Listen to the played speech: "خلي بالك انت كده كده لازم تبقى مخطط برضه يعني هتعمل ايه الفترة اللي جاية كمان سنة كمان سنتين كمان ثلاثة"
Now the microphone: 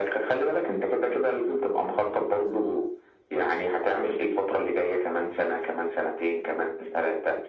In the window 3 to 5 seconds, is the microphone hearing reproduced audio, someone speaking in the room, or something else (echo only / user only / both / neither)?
echo only